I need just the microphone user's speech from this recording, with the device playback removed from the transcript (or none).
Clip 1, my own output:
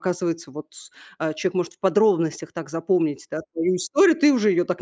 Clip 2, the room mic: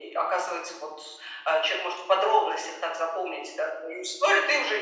none